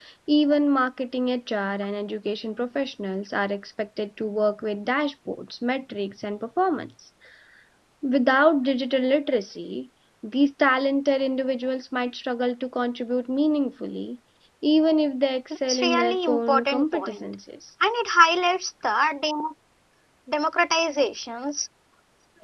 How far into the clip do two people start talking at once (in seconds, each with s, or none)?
15.7 s